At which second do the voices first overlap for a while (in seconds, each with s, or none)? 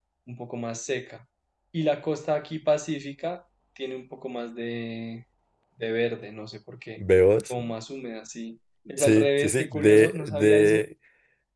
8.9 s